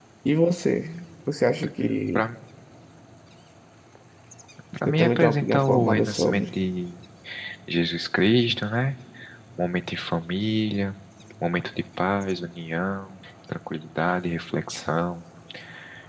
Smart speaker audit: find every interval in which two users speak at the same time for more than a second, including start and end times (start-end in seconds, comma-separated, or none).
4.9-6.4